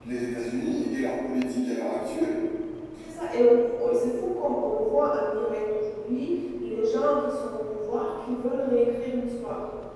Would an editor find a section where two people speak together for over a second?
No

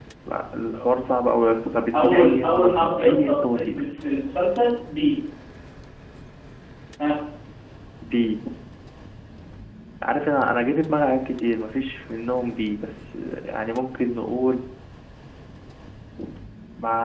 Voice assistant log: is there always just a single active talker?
No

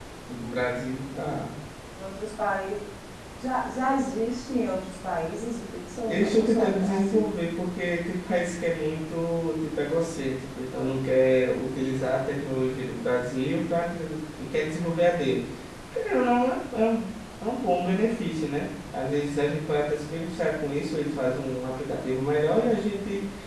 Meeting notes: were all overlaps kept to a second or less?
No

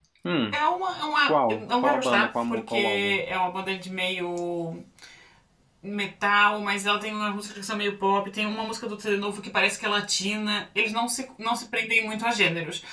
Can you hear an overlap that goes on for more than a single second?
Yes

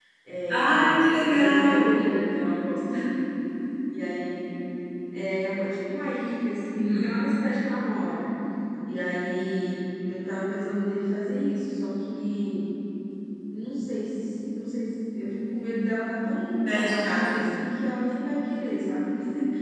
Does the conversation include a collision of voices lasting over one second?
Yes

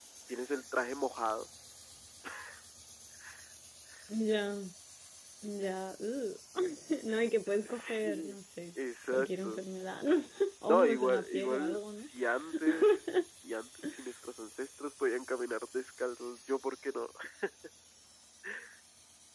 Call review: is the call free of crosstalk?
No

